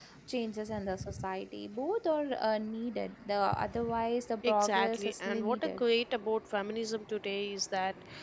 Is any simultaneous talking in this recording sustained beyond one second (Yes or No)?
Yes